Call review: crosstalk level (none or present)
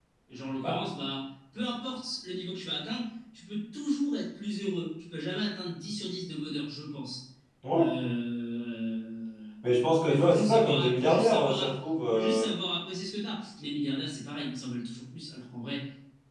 present